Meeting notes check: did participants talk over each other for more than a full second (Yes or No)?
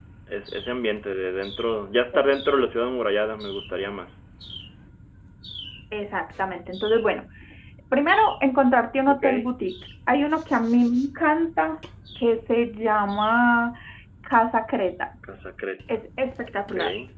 No